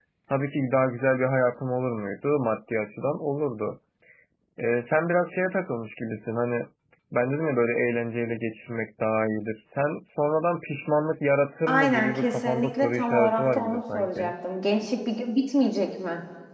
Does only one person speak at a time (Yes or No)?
No